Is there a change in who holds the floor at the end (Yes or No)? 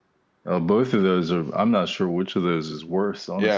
Yes